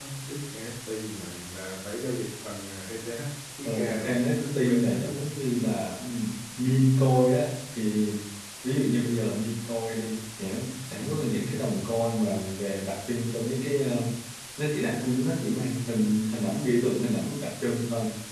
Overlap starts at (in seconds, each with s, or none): 3.6 s